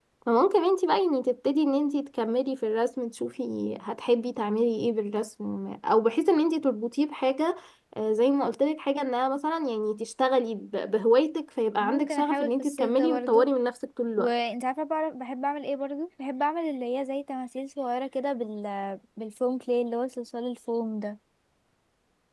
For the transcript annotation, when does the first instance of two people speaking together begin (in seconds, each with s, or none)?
11.8 s